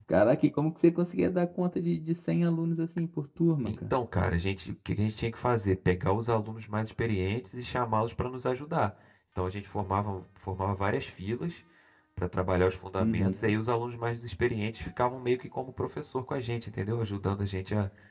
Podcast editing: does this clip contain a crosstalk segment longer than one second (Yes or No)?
No